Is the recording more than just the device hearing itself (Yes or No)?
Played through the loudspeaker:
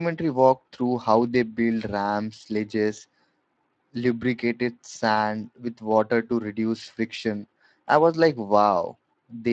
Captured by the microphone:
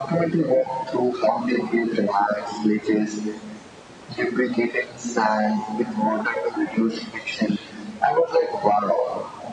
No